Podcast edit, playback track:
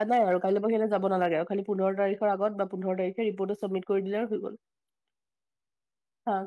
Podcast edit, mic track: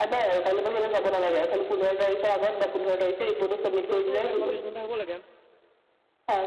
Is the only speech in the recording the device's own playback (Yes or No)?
No